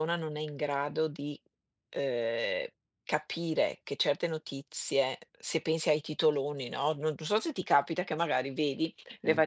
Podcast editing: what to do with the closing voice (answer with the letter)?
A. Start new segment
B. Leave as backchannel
B